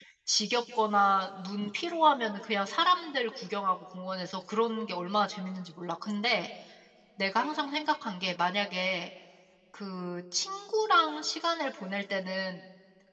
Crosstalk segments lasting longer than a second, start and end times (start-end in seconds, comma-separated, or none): none